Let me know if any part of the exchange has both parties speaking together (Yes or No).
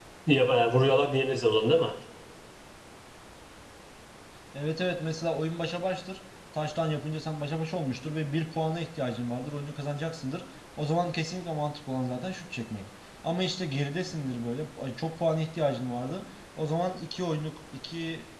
No